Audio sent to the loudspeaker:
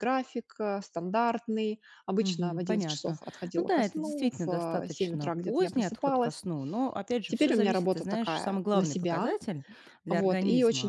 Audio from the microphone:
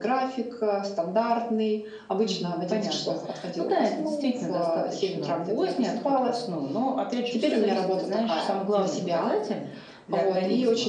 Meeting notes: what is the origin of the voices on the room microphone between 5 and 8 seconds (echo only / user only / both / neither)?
echo only